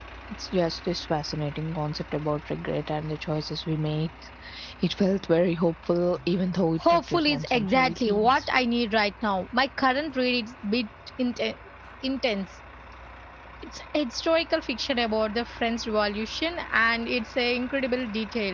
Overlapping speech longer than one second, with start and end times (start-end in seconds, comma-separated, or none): 6.9-8.5